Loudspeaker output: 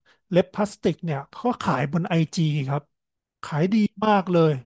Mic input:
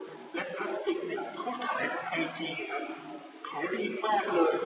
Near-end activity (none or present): none